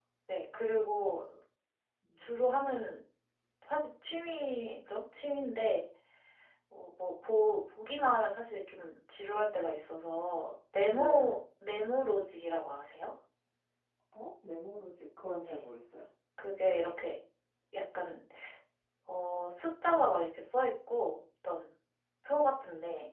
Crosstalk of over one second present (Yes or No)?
No